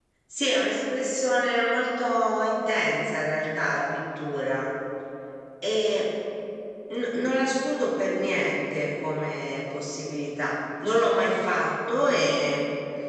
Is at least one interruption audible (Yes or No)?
No